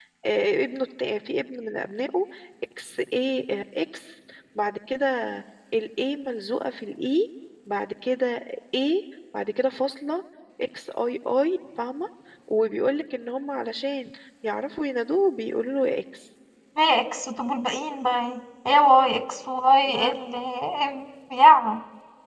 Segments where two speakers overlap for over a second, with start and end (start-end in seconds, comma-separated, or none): none